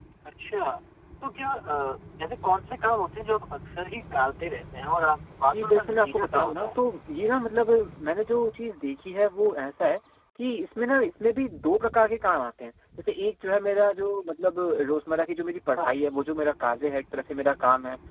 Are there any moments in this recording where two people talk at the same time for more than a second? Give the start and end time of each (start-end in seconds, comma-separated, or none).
5.5-6.8